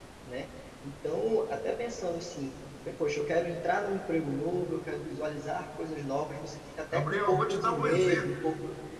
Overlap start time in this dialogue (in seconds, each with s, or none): 6.9 s